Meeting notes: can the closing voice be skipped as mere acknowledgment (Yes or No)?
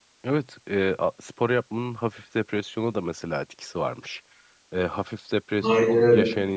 Yes